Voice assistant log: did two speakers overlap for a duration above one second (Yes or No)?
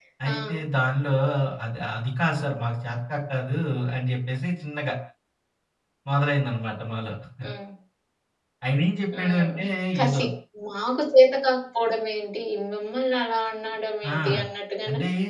No